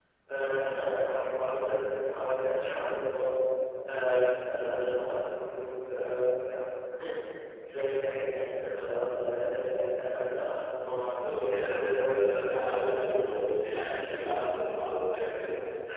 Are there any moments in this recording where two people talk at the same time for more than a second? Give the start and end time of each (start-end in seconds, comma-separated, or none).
11.6-13.2